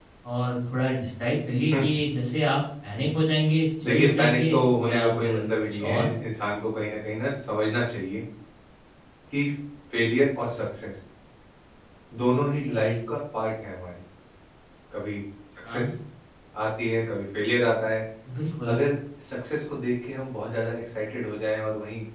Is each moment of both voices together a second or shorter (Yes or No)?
No